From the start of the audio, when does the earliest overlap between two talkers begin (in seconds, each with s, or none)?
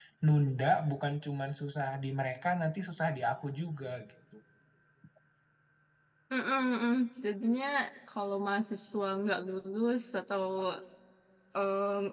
none